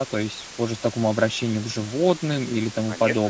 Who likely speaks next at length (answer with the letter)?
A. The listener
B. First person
A